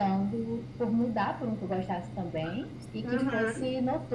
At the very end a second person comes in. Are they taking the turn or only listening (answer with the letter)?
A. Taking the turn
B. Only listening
B